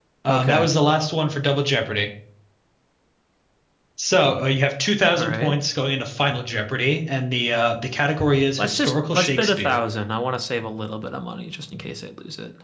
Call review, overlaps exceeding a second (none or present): present